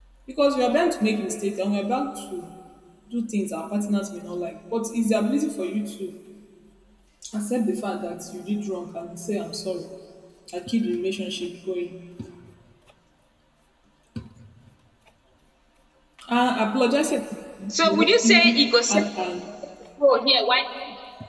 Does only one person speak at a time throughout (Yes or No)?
No